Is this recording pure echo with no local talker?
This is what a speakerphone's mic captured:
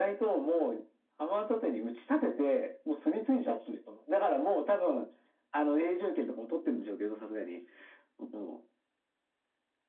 Yes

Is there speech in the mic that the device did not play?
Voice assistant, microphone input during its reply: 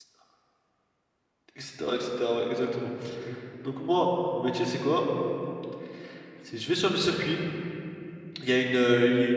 Yes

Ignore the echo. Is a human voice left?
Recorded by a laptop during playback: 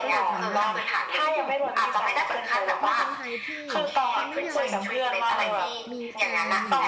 Yes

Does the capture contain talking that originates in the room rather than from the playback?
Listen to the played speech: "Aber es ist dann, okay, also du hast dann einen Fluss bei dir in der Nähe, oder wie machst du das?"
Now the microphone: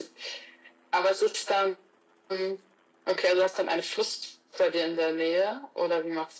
No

